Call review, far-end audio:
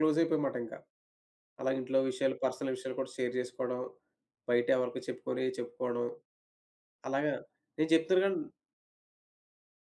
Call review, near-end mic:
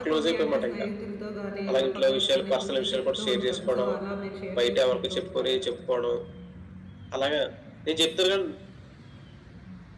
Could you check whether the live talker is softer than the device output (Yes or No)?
Yes